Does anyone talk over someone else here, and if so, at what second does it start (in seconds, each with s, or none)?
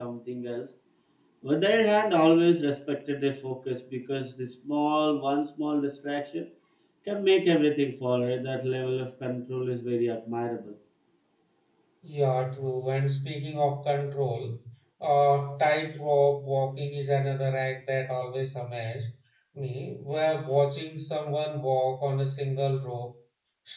none